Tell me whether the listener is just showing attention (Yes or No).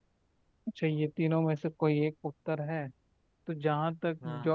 Yes